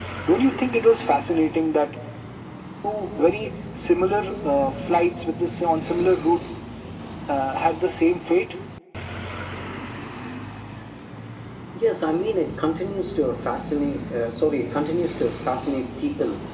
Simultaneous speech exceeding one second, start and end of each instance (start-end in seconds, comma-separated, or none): none